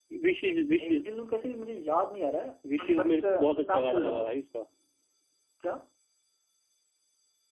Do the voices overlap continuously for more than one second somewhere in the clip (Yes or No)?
Yes